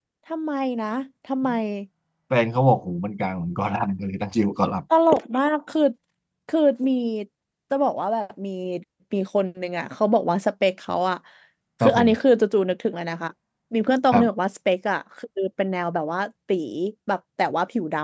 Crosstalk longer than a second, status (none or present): none